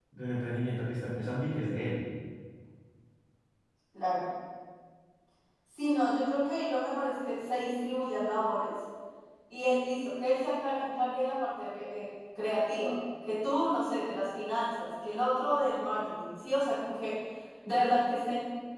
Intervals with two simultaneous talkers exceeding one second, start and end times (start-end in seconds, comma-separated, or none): none